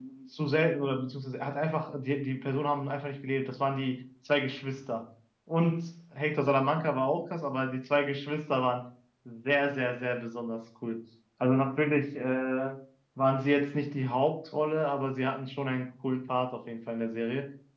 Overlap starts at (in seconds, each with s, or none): none